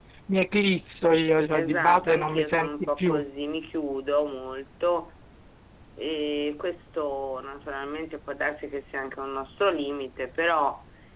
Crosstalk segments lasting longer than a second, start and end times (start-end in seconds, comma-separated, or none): 1.5-3.2